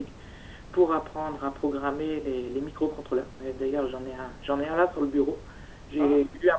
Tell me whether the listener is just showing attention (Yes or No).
Yes